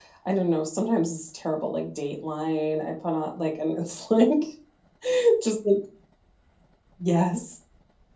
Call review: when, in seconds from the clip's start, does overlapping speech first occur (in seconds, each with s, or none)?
none